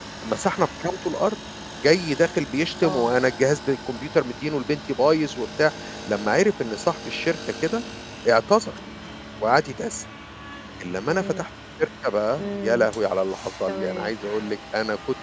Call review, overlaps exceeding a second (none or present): none